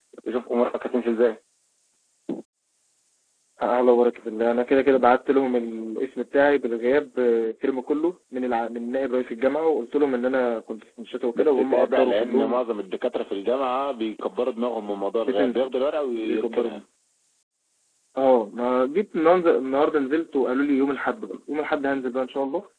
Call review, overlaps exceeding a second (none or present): present